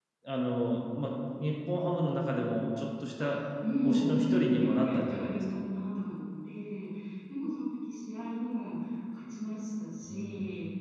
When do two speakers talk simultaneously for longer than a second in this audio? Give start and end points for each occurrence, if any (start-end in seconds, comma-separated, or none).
3.9-5.4